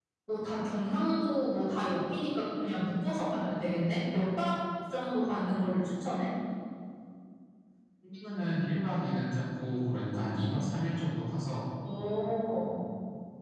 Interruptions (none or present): none